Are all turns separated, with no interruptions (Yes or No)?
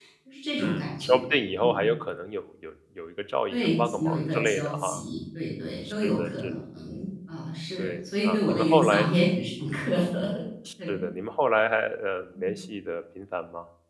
No